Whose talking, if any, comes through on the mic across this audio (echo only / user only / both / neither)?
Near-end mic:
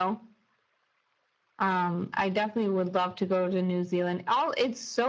echo only